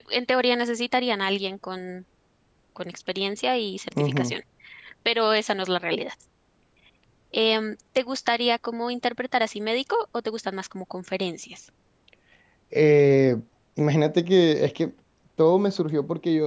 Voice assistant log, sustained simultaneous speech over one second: none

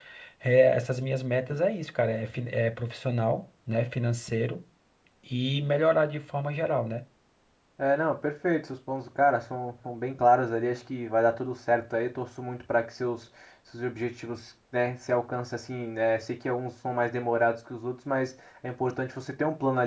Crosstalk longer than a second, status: none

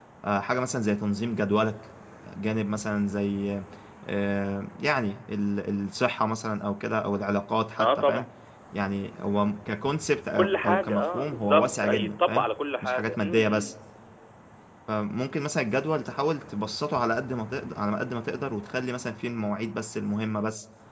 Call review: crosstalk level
present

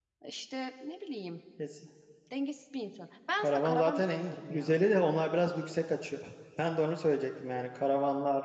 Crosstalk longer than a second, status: present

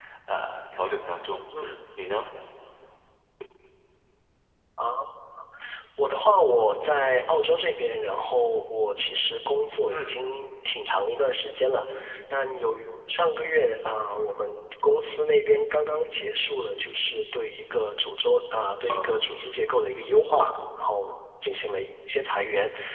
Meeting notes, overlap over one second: none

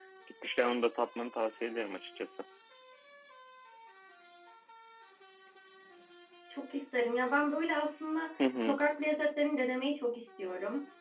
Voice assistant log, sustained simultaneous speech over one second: none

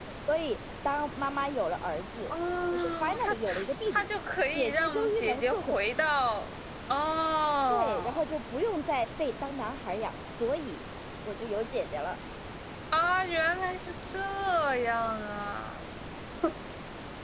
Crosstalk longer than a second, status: present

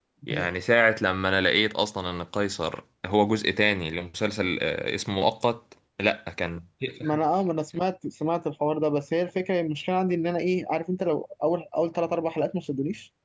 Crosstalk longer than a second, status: none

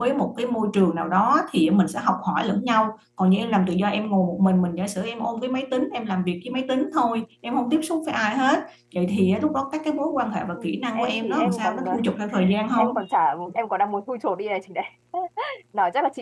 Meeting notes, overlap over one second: present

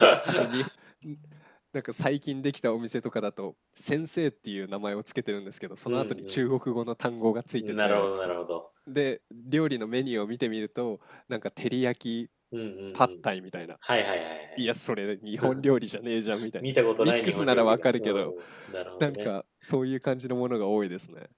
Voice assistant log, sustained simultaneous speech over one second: present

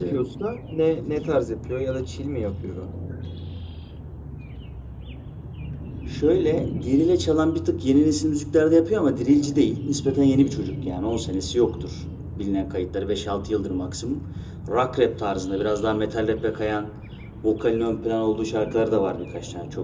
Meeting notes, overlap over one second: none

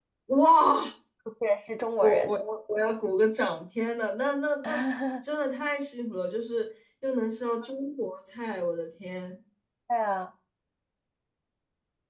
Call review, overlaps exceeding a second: none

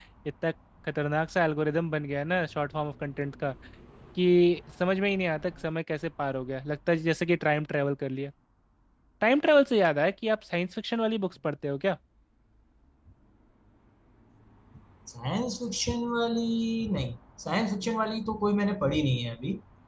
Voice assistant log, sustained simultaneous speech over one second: none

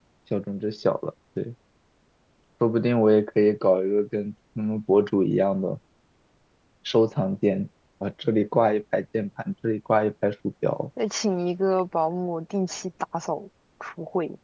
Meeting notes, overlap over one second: none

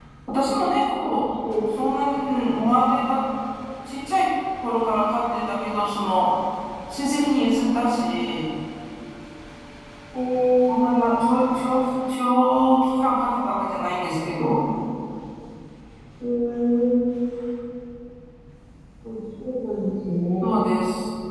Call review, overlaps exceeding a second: none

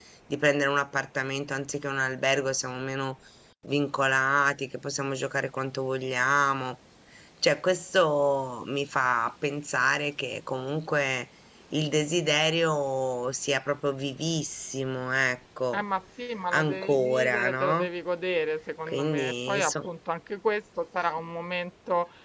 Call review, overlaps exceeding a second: present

